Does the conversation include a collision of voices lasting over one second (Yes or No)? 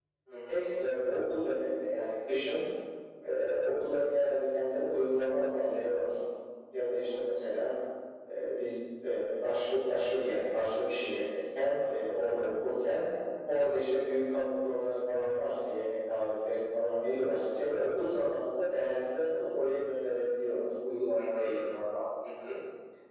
No